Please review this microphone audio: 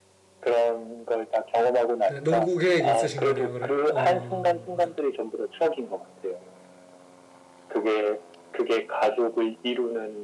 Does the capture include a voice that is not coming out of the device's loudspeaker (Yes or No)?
Yes